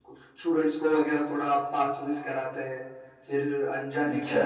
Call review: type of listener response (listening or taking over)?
listening